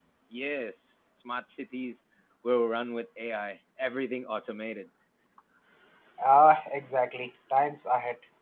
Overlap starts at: none

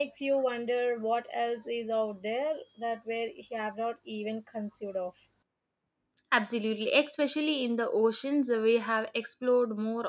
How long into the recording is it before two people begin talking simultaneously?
none

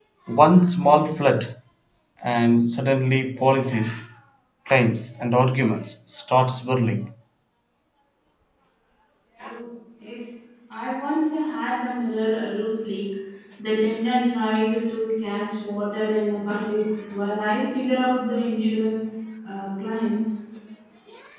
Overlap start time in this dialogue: none

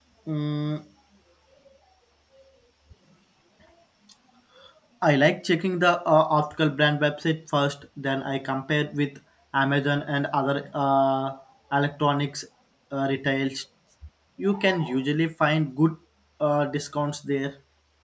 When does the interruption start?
none

